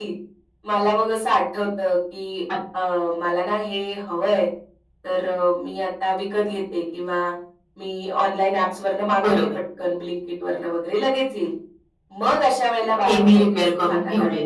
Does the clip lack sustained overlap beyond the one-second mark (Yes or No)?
No